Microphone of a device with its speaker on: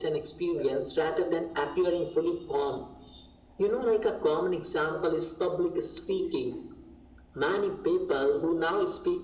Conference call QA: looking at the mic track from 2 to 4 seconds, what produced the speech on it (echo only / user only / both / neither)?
echo only